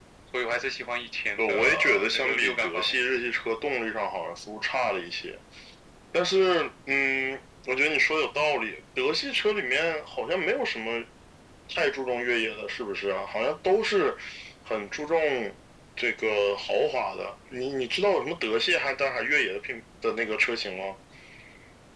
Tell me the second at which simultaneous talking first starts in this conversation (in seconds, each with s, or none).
1.4 s